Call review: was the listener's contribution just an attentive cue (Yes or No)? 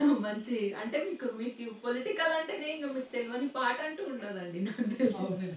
No